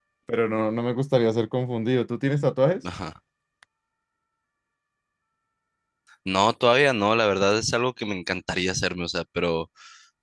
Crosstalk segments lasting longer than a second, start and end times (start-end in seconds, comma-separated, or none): none